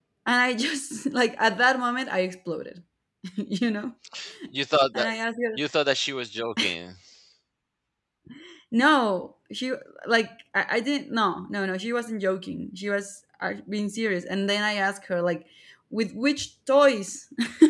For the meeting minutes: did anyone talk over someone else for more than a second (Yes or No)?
No